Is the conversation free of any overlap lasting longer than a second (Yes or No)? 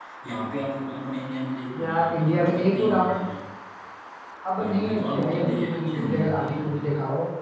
No